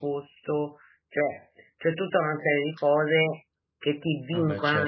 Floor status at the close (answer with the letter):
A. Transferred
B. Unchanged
B